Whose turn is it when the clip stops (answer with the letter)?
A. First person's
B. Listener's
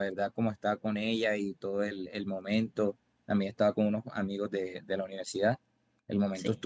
A